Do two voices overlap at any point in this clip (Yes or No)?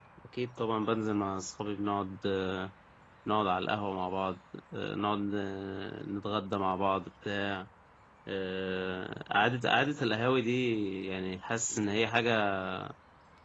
No